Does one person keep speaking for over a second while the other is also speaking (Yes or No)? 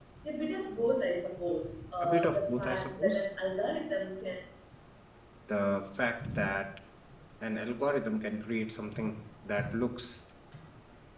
Yes